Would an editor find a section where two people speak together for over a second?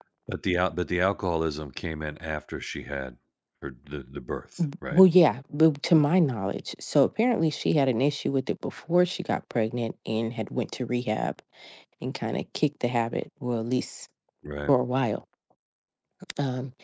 No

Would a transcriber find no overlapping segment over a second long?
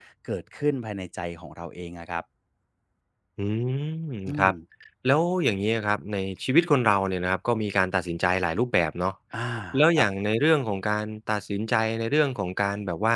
Yes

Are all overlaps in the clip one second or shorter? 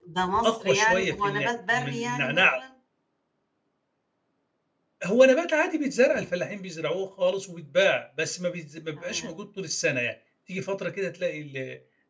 No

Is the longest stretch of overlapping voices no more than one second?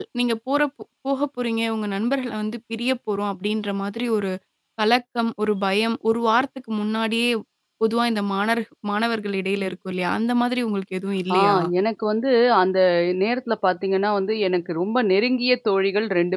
Yes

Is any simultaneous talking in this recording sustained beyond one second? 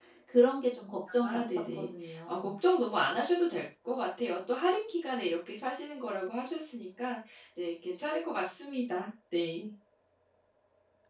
Yes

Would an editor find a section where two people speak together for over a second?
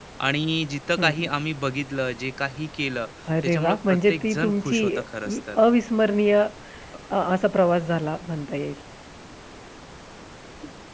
Yes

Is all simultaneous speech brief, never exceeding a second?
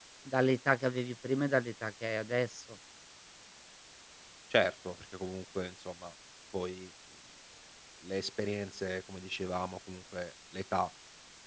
Yes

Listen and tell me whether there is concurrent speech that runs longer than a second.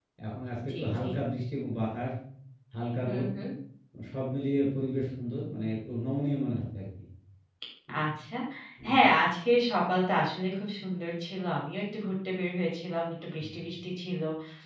No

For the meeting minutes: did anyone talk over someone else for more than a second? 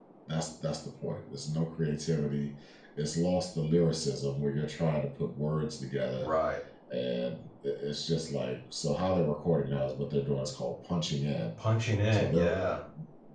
No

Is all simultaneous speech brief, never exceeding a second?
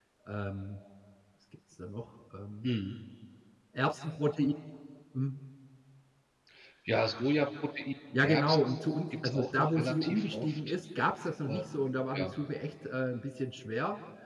No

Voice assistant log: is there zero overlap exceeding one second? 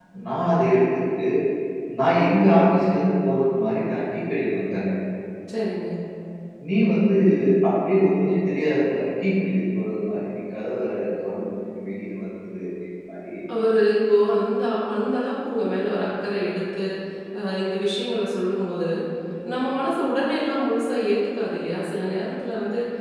Yes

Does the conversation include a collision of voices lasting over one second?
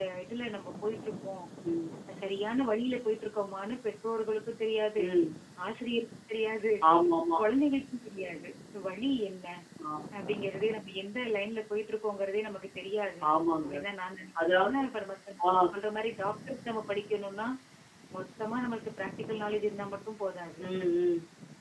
No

